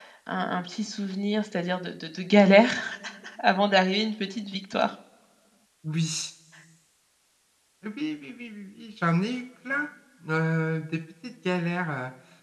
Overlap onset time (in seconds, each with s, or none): none